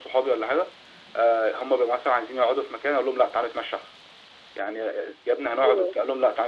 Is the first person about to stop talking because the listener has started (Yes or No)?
No